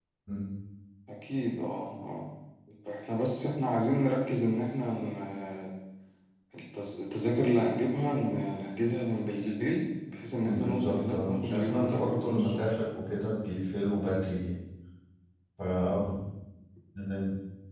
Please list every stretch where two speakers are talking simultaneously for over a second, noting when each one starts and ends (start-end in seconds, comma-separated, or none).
10.4-12.6